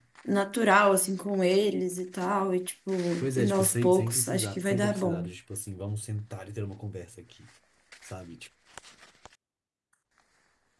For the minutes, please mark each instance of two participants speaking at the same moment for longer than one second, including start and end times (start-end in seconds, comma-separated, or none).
3.2-5.3